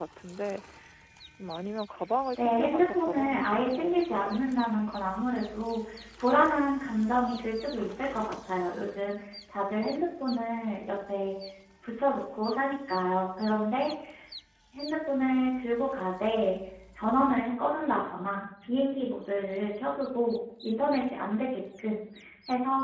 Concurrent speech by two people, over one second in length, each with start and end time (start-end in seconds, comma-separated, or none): 2.4-4.2